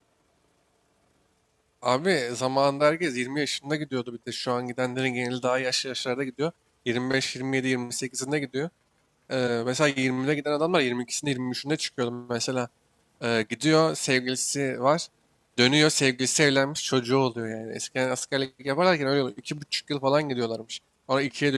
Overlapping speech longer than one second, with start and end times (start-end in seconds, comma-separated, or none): none